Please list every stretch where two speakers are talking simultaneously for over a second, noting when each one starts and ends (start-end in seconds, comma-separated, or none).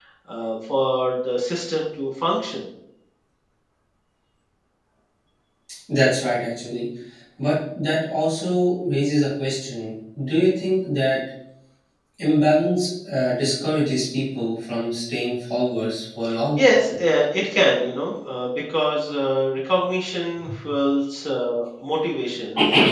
none